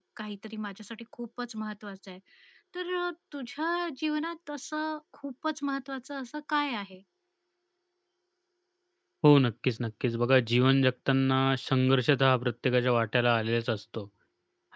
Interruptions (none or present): none